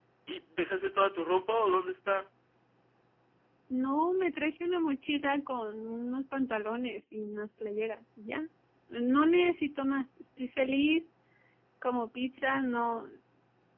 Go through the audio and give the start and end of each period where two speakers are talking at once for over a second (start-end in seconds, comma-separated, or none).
none